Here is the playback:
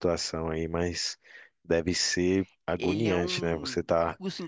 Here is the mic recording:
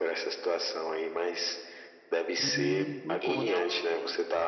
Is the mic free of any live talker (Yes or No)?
No